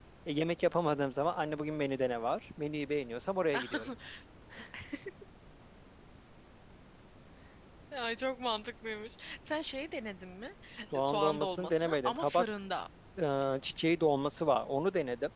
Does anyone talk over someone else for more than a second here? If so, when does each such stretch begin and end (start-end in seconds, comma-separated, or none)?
10.9-12.4